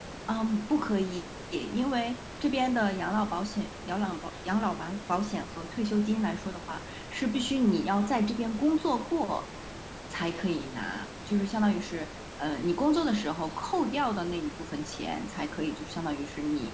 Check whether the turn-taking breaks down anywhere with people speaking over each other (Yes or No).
No